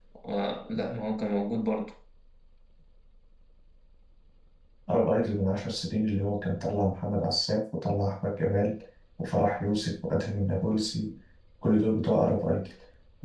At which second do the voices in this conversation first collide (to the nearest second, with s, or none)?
none